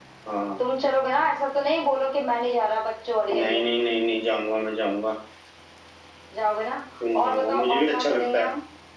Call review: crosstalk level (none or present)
present